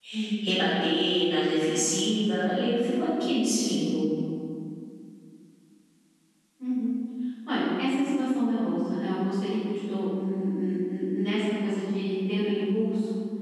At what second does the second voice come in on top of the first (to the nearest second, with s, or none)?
none